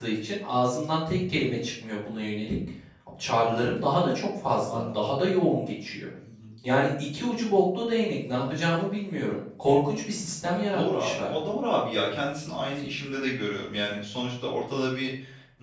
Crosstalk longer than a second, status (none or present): none